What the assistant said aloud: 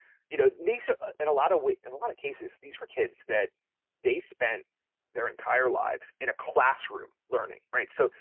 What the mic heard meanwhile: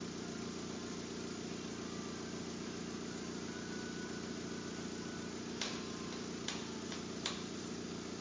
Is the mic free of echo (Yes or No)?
Yes